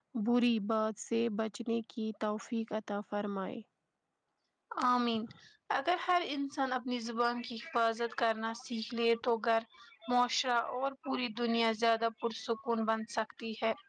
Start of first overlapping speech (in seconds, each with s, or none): none